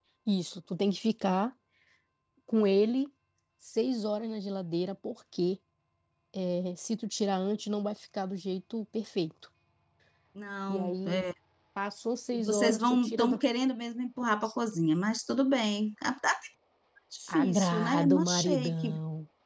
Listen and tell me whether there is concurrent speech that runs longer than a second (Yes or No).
Yes